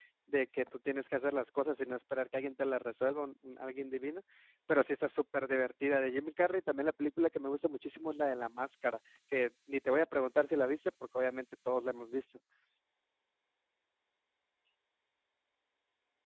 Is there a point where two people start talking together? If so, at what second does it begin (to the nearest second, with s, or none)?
none